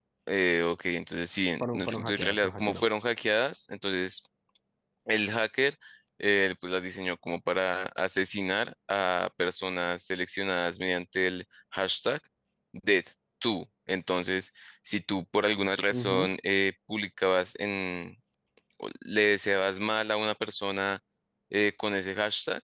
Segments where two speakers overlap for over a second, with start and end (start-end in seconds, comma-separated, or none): 1.6-2.8